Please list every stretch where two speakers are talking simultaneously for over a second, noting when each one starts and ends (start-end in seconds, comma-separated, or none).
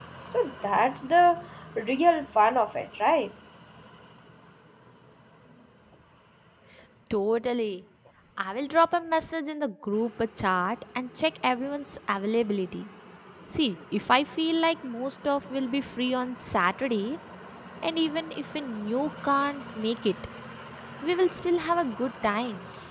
none